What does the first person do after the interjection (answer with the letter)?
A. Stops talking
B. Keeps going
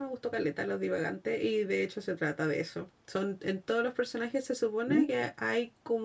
B